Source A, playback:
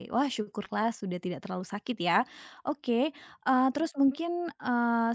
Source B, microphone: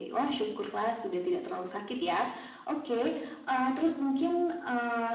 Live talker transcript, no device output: none

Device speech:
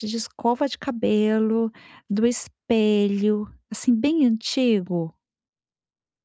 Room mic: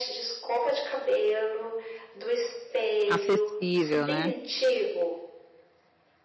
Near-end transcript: Acessível, né.

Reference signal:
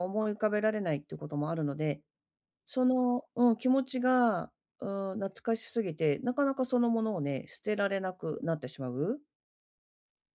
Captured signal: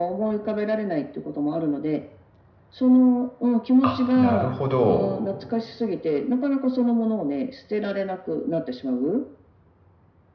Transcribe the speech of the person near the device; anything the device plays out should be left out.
あ、なるほど。

